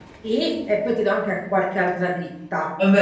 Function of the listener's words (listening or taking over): taking over